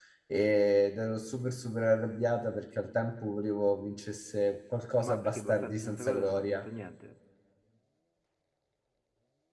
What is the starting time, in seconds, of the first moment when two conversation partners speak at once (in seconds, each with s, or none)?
5.0 s